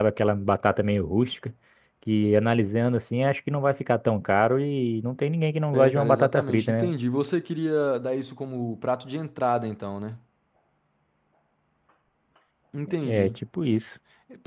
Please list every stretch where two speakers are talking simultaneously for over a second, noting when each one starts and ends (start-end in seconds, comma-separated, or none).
5.7-6.9